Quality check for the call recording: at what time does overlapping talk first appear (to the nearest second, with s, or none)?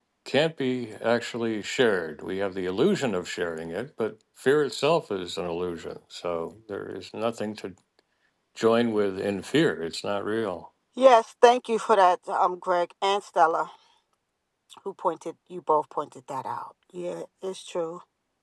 none